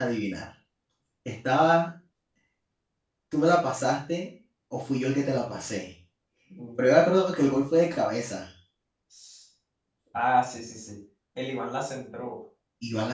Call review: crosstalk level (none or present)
none